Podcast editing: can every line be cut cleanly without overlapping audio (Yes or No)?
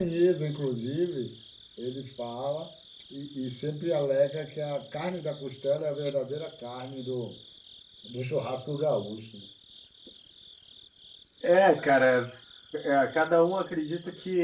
Yes